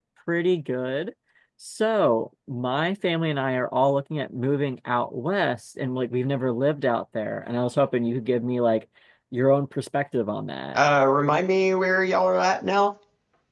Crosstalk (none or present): none